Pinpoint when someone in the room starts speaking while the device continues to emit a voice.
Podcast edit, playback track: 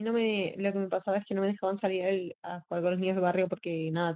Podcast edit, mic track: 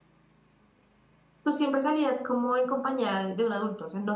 1 s

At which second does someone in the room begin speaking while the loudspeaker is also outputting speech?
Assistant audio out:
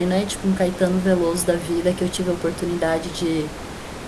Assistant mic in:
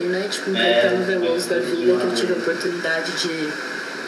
1 s

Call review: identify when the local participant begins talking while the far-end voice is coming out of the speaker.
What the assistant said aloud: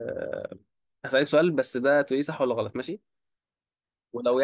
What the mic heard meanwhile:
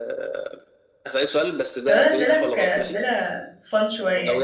2 s

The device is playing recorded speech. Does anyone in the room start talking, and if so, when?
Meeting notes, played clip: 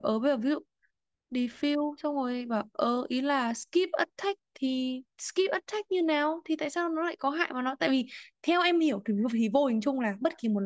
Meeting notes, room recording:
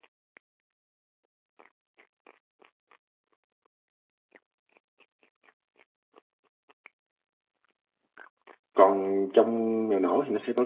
9 s

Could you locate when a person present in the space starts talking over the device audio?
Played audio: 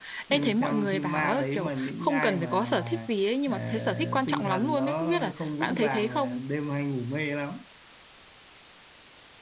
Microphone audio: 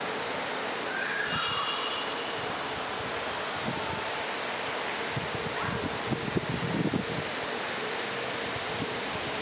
none

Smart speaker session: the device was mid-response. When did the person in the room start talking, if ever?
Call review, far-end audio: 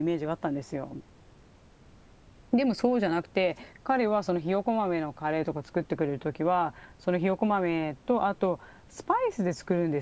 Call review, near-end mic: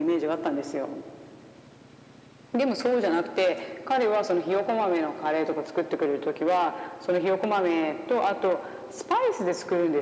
none

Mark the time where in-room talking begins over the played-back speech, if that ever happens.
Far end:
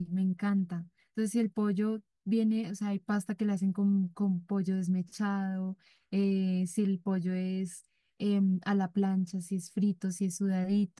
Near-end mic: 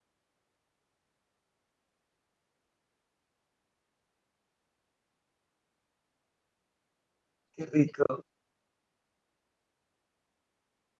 8 s

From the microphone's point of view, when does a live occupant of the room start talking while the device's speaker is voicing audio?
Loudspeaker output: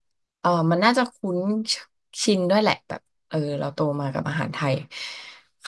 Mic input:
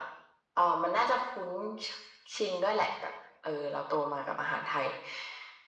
none

